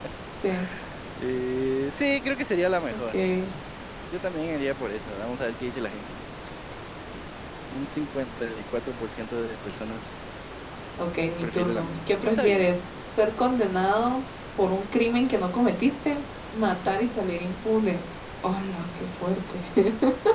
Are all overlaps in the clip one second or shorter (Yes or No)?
No